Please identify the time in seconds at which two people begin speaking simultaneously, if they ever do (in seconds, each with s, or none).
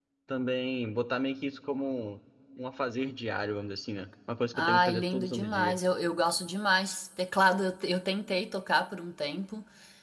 4.5 s